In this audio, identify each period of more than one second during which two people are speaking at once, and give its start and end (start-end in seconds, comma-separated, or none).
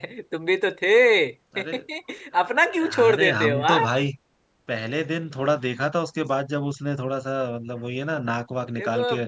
2.4-3.9